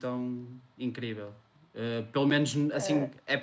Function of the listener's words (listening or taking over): listening